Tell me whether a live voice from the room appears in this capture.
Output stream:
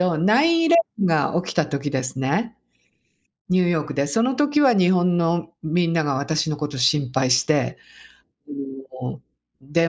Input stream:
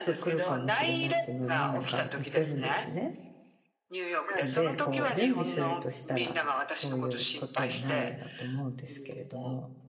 Yes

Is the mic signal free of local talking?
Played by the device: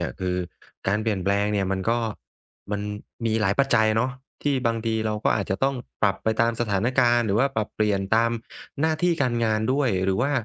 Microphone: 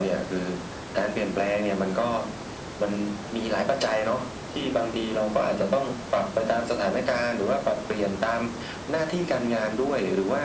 Yes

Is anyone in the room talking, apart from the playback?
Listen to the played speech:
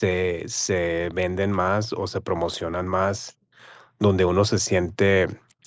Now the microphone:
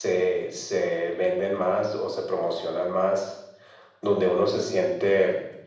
No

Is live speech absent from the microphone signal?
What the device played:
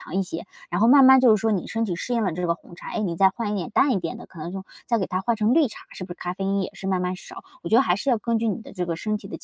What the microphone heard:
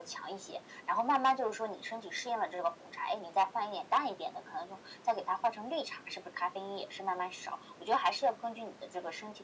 Yes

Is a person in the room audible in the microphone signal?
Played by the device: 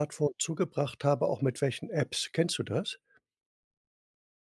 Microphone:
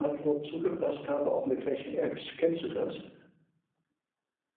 No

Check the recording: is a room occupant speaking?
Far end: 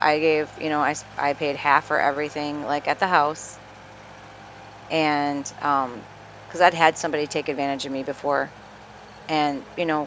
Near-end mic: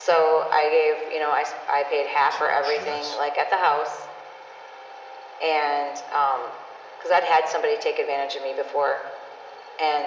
Yes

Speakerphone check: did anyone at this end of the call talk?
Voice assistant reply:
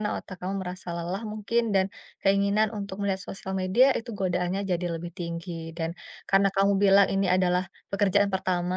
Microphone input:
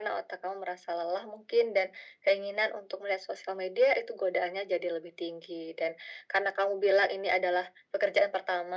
No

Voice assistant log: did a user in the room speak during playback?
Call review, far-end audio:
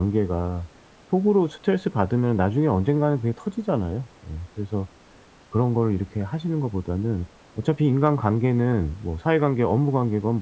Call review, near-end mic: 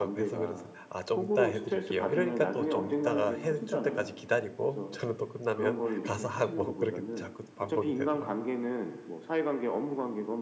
Yes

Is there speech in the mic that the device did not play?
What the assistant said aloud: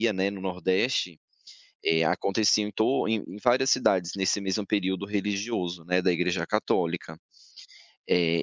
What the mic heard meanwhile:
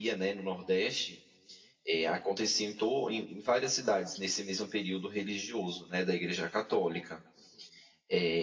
No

